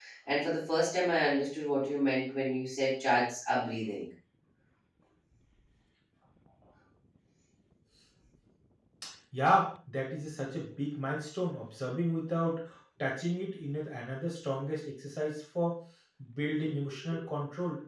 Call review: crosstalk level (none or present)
none